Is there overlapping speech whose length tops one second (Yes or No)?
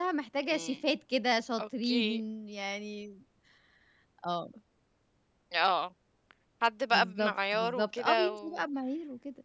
Yes